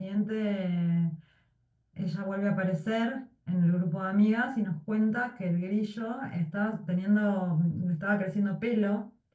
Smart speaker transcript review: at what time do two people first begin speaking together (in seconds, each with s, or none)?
none